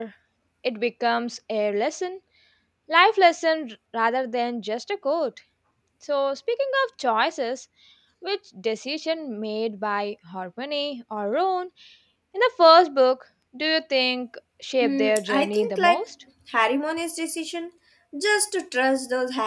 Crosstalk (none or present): present